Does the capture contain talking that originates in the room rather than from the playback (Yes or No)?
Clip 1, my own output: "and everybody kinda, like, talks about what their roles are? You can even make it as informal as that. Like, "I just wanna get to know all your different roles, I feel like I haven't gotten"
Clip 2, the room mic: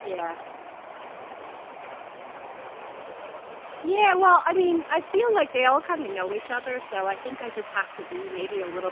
Yes